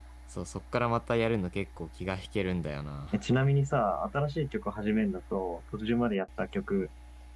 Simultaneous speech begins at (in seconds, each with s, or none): none